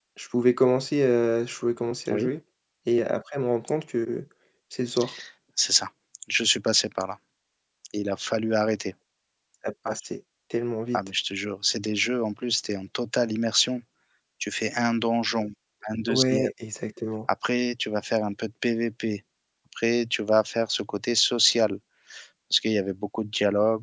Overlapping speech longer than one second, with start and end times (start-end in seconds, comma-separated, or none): none